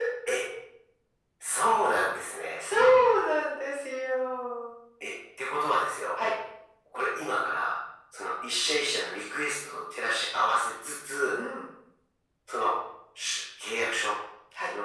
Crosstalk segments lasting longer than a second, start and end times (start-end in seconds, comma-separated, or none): none